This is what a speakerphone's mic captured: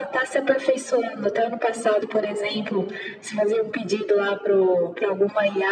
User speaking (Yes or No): No